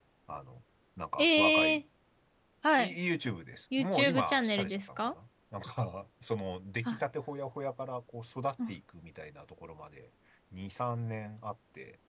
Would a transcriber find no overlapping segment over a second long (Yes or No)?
No